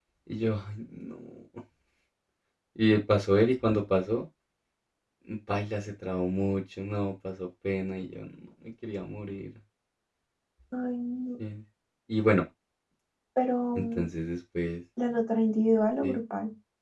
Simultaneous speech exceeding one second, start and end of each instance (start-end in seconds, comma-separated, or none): none